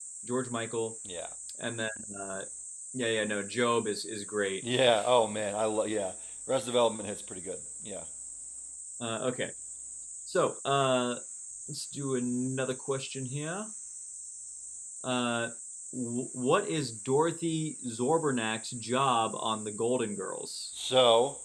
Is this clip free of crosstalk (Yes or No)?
Yes